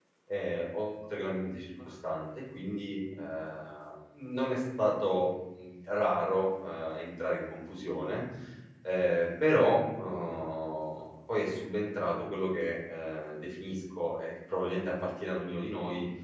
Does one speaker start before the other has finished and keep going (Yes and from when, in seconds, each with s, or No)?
No